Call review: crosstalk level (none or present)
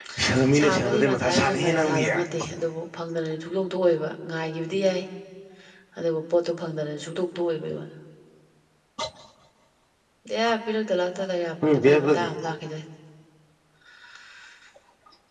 present